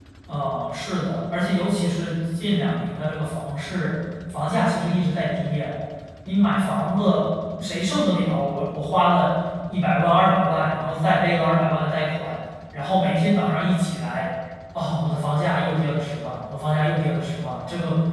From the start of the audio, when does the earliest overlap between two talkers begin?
none

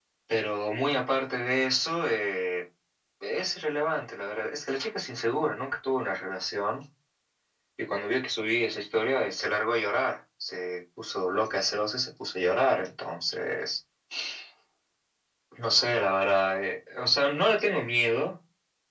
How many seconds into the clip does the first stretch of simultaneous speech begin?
none

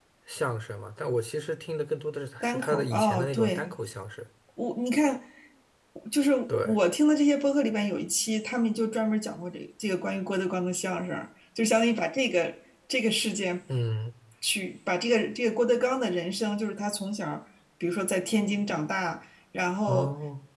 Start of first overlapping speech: 2 s

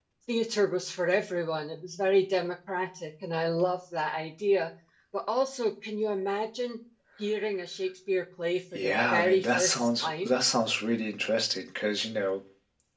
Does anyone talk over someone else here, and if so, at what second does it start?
9 s

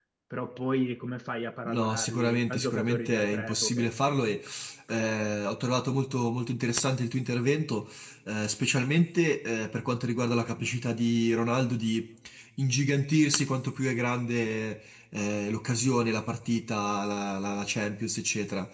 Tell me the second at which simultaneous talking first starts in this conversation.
2 s

